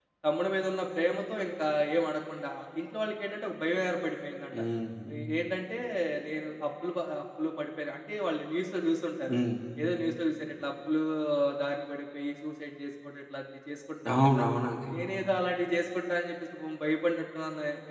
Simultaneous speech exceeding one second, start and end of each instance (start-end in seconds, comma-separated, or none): none